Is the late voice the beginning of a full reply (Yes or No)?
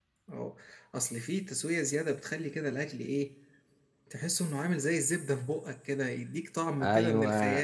Yes